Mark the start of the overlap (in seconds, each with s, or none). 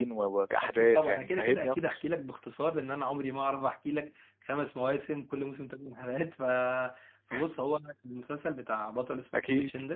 0.6 s